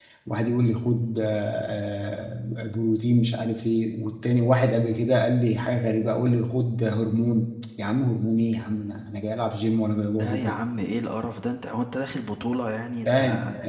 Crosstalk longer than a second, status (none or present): none